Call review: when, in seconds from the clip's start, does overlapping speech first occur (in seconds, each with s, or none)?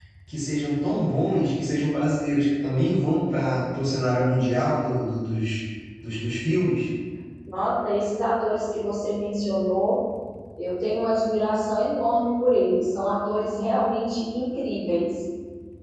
none